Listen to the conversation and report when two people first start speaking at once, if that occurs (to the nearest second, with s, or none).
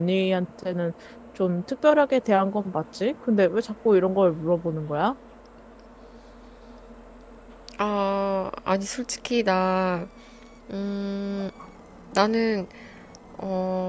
none